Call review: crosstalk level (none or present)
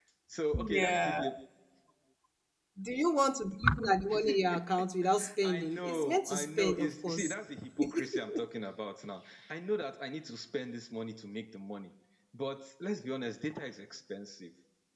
present